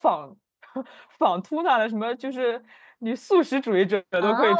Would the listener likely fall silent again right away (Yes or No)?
No